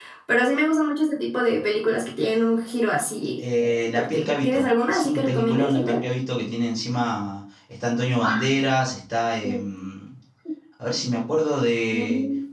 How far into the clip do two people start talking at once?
4 s

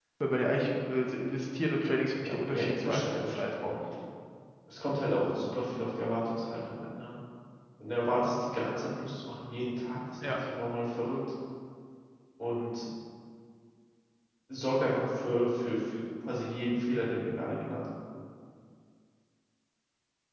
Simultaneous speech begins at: 2 s

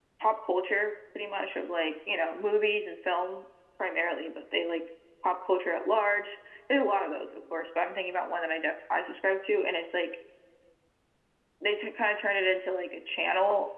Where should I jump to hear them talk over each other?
none

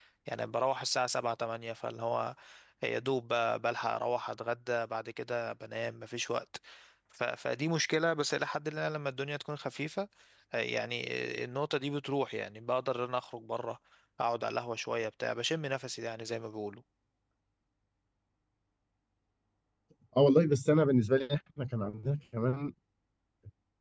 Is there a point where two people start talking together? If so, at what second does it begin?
none

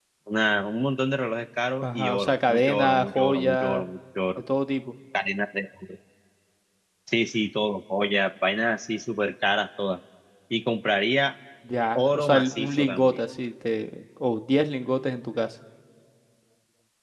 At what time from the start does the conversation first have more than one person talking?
2 s

